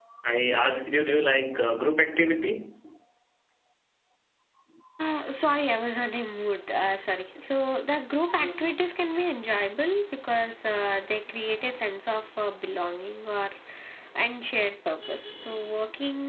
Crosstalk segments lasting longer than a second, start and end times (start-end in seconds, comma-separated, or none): none